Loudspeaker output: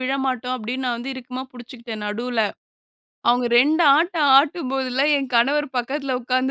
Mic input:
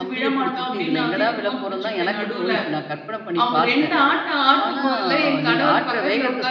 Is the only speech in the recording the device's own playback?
No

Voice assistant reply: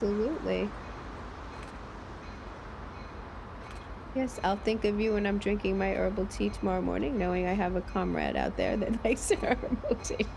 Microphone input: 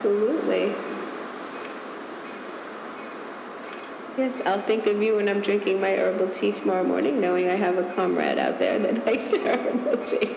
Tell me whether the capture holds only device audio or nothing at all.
Yes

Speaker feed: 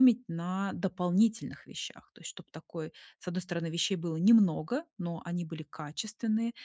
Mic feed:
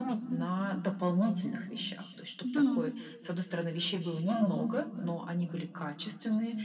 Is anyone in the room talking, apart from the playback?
Yes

